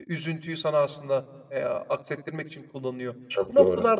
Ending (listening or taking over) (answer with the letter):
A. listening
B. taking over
A